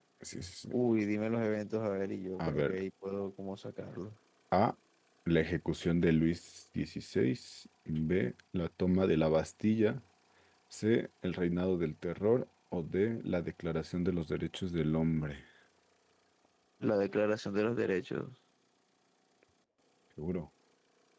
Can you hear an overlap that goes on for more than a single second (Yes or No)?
No